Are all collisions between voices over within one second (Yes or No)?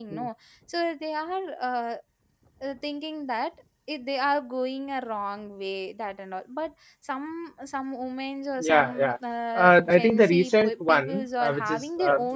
No